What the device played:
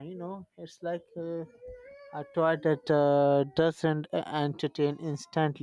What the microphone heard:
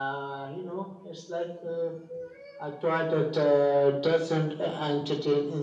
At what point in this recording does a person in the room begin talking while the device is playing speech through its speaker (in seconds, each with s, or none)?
none